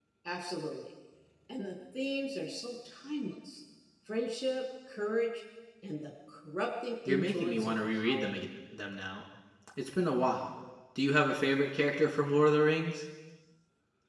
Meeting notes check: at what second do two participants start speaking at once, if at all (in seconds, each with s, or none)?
7.0 s